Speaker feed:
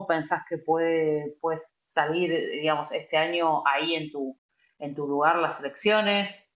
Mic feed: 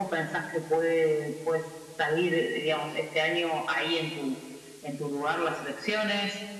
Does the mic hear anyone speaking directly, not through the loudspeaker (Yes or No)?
No